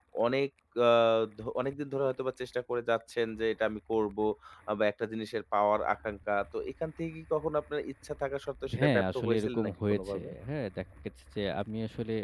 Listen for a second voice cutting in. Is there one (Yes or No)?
Yes